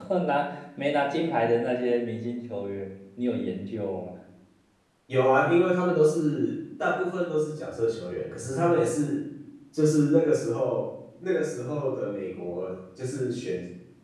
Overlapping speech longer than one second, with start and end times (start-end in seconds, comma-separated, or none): none